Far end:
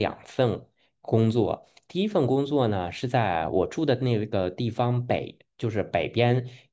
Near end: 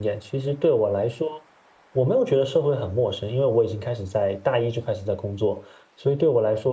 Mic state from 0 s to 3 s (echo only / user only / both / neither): user only